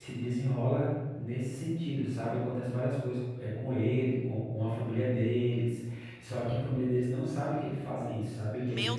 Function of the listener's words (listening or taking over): taking over